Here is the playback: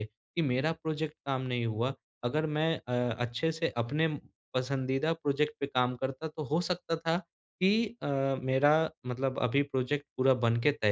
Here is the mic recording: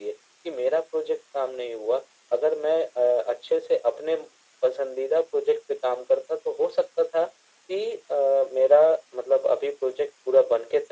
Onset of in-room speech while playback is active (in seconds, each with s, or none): none